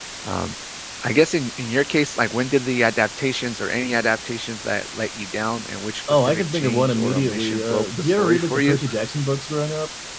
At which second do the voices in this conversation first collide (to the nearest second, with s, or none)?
6 s